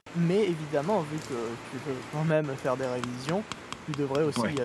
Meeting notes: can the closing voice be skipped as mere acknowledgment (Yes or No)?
Yes